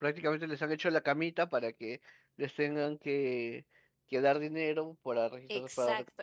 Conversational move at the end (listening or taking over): taking over